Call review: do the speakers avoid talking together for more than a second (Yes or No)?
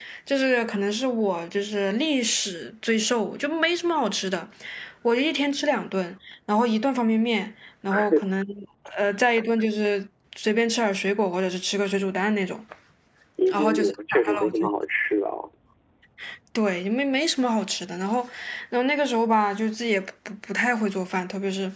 No